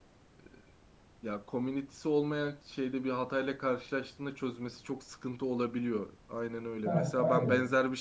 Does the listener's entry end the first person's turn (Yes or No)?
No